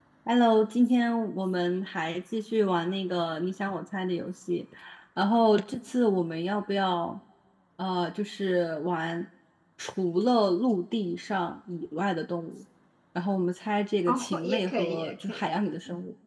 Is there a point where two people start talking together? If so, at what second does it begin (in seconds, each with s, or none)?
14.1 s